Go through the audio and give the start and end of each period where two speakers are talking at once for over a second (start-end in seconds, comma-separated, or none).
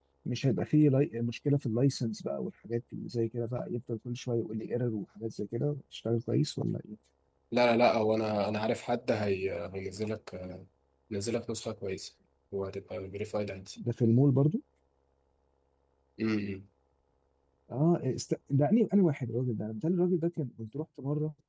none